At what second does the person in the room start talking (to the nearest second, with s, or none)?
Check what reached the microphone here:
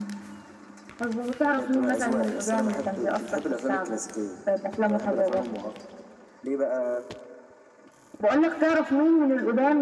none